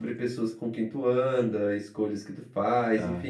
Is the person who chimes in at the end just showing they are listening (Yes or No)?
Yes